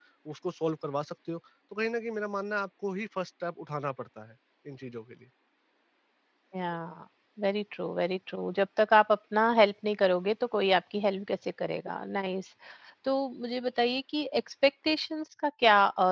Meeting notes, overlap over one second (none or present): none